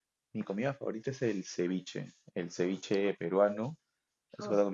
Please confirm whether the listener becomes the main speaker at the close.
No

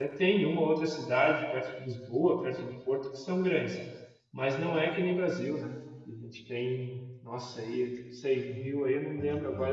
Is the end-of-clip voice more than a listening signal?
No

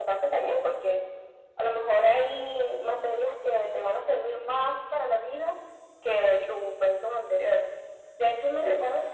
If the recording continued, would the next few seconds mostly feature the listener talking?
No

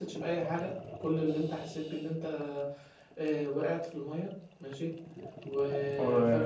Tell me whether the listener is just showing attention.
Yes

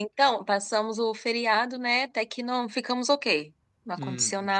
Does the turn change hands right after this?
No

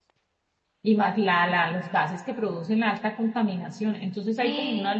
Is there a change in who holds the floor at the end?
No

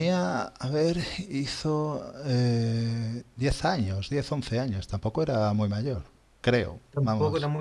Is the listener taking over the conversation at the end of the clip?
Yes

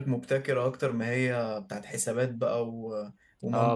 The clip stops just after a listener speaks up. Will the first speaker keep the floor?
No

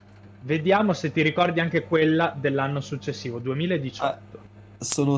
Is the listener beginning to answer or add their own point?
Yes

